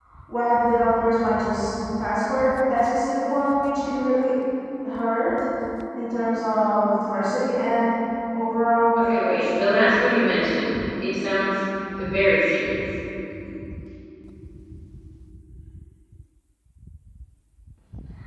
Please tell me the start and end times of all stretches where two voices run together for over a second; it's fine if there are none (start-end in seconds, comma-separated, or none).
9.0-10.2